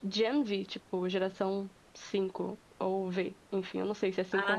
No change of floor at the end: No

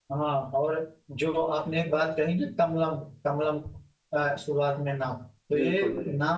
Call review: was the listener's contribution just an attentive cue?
Yes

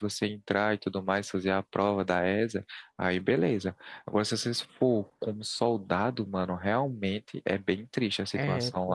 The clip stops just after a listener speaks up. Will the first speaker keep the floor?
No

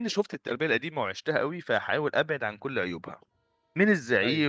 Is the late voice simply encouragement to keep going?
Yes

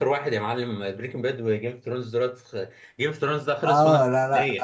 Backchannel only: No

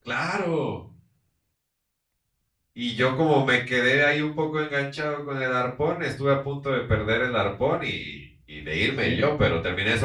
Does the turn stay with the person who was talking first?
Yes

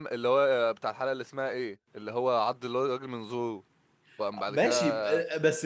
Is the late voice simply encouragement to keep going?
No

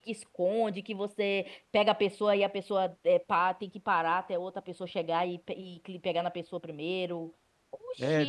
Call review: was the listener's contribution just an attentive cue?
No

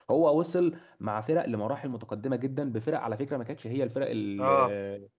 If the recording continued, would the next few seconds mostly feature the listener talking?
No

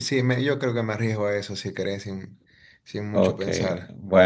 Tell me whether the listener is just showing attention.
No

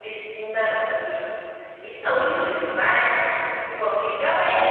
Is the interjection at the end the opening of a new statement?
Yes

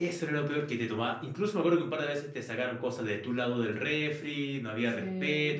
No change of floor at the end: Yes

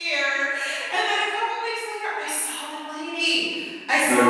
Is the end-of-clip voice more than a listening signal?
No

